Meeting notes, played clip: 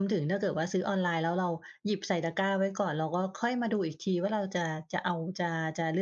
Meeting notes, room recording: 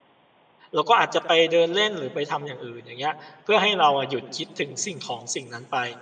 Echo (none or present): none